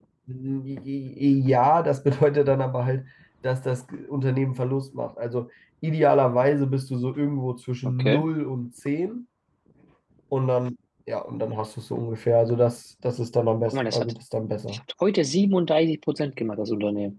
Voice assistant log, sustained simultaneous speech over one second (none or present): none